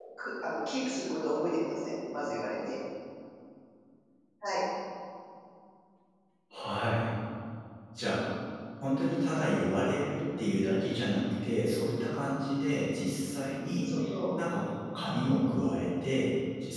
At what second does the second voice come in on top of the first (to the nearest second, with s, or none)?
none